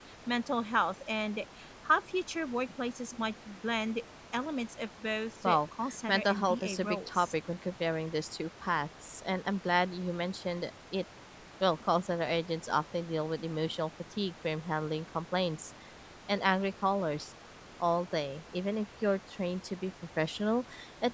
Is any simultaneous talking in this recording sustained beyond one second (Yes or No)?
Yes